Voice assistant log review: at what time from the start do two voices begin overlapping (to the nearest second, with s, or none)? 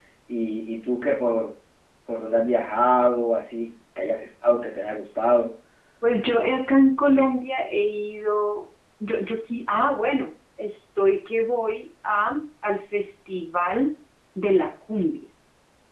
none